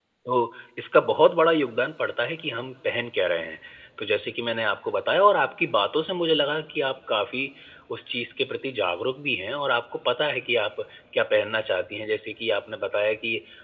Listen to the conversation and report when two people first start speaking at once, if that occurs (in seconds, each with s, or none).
none